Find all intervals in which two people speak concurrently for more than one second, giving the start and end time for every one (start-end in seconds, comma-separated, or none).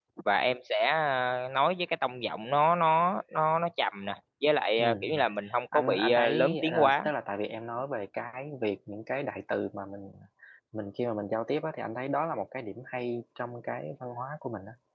5.7-7.1